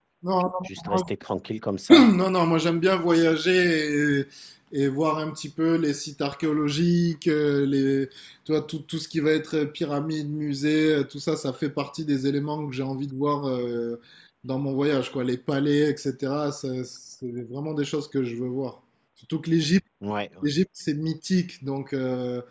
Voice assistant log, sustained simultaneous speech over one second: none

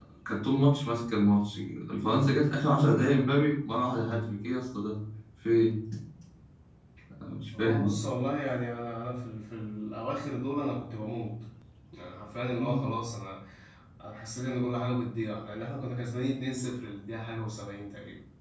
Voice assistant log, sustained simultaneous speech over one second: none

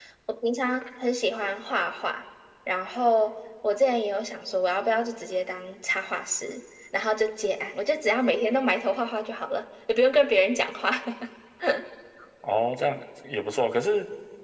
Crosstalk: none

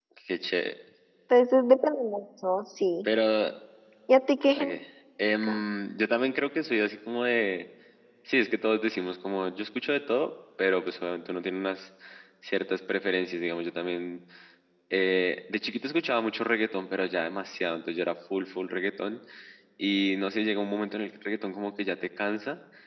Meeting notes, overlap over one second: none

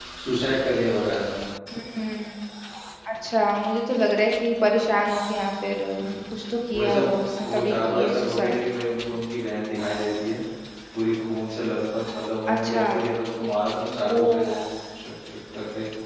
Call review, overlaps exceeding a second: present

